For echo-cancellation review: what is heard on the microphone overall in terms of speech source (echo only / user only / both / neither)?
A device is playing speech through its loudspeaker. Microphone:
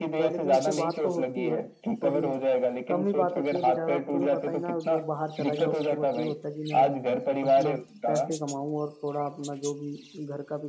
both